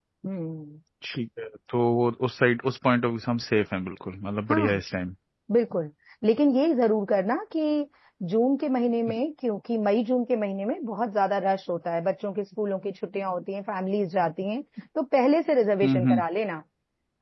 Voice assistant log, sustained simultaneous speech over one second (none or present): none